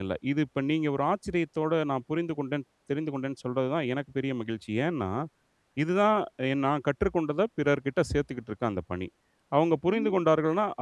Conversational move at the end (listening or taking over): listening